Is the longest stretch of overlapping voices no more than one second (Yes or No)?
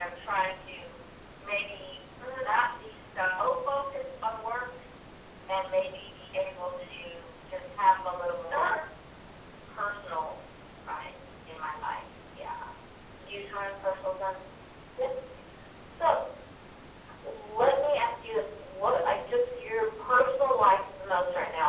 Yes